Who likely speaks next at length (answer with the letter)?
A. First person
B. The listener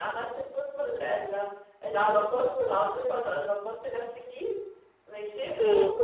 A